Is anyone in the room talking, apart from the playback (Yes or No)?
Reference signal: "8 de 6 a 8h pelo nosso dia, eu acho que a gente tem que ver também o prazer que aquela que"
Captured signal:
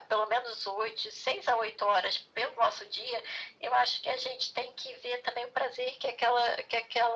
No